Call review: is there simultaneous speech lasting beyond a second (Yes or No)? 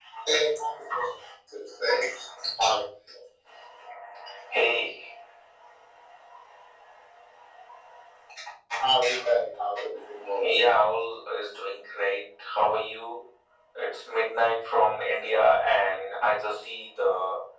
No